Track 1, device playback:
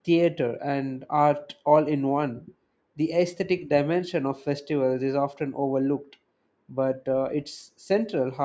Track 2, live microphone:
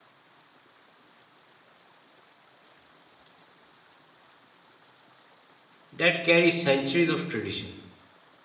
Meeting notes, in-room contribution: present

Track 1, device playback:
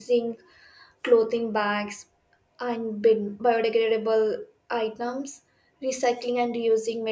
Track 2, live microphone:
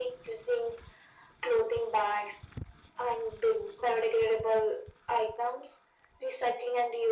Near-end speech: none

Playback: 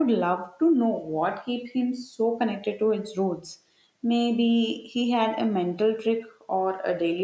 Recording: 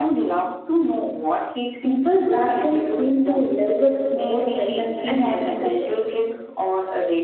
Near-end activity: present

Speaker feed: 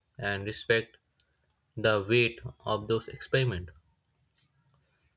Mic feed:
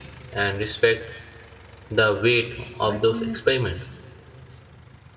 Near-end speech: present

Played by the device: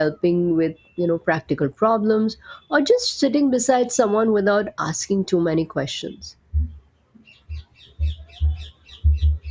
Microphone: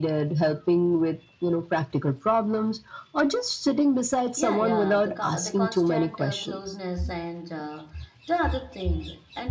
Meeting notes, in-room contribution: present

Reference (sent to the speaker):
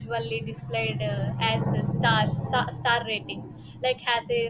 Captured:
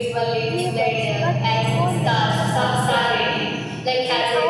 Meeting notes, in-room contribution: present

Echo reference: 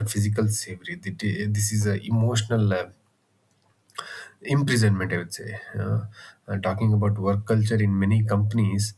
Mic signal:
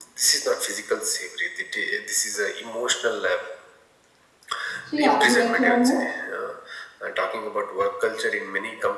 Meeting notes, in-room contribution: present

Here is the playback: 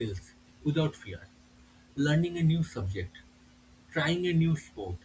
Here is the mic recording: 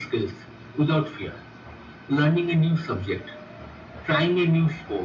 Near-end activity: none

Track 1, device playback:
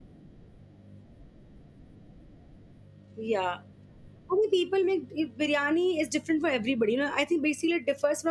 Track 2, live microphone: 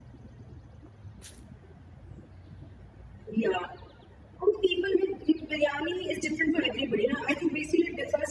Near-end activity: none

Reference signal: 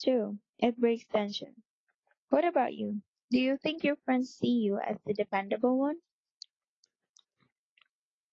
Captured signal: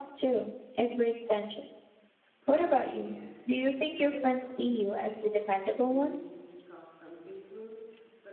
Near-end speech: present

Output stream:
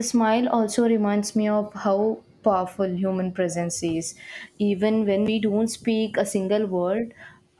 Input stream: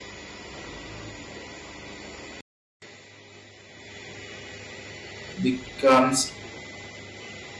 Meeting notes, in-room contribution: present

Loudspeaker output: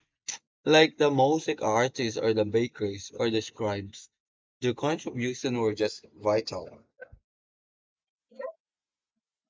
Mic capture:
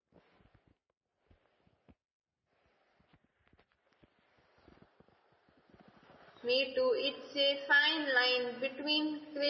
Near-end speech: present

